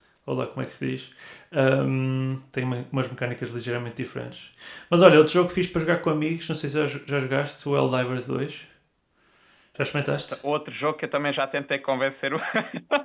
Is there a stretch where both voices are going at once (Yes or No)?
No